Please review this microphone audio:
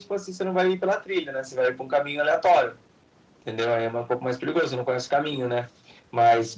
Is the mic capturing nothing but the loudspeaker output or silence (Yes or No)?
Yes